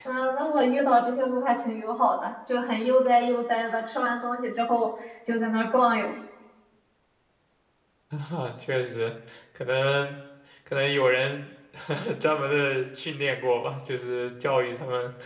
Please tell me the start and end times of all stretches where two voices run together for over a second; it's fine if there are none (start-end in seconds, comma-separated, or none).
none